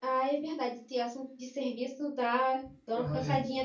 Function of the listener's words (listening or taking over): listening